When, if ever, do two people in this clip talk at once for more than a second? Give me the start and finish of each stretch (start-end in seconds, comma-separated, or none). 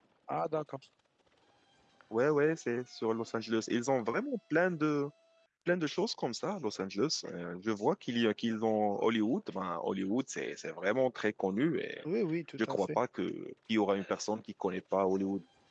none